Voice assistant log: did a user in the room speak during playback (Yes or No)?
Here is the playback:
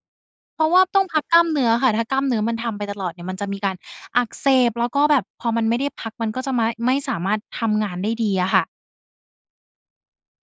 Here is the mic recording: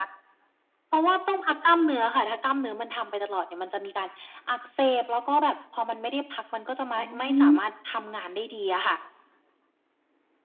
Yes